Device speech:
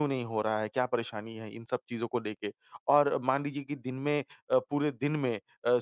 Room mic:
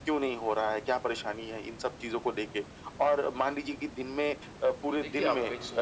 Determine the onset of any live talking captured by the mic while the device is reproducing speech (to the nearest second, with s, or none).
5 s